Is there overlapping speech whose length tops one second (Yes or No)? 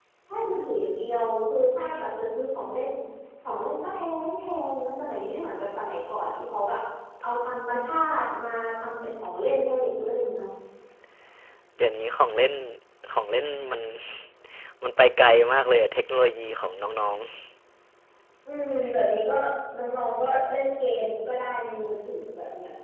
No